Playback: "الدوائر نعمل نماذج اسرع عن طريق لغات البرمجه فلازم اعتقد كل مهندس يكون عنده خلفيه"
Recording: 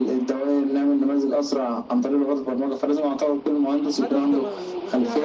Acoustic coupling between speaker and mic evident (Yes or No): Yes